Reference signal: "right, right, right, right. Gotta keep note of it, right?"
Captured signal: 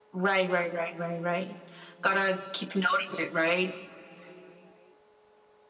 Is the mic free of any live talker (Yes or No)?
Yes